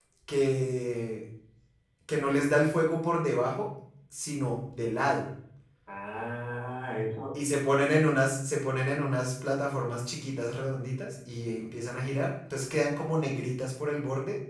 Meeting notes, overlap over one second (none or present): none